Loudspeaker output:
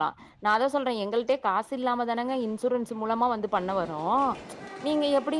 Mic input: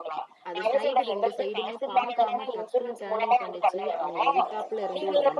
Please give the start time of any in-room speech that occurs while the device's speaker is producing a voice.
0 s

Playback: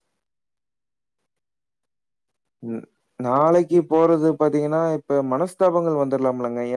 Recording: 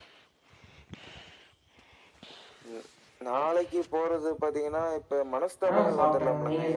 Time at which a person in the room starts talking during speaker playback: 6 s

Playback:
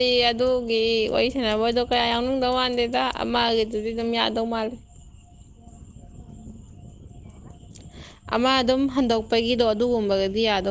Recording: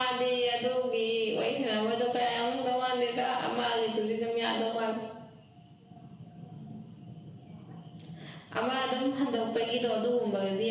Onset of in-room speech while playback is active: none

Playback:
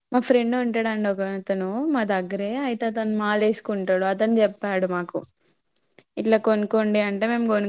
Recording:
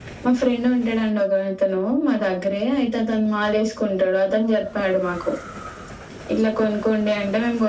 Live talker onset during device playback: none

